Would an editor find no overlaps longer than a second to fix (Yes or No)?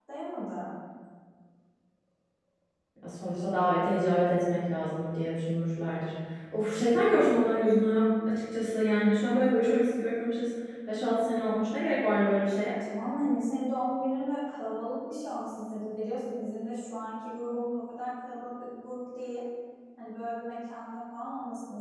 Yes